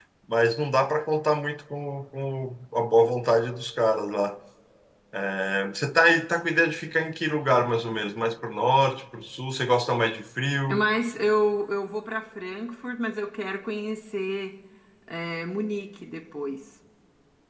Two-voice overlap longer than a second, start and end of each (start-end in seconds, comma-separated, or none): none